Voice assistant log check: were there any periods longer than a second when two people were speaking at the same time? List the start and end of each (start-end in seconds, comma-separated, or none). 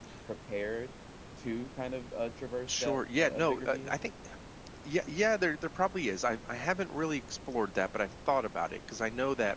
2.7-3.9